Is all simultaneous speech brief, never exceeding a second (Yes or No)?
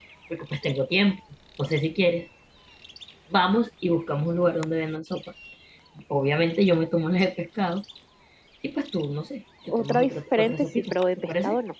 No